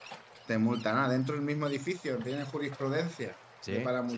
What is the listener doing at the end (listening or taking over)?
listening